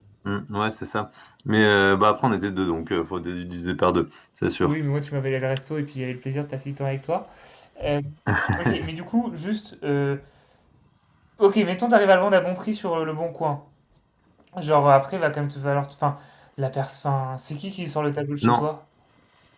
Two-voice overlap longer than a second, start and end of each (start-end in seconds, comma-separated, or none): none